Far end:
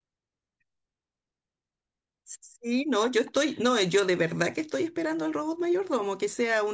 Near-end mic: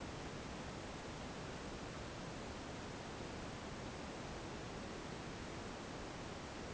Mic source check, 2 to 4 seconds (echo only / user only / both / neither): neither